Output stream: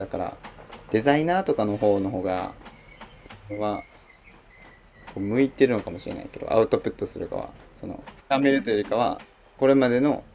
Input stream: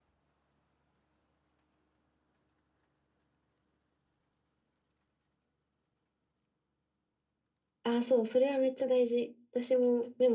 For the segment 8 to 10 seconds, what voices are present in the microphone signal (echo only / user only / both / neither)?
user only